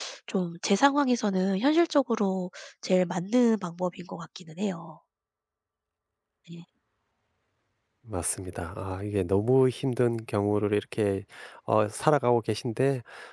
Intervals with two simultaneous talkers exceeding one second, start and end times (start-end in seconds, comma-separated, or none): none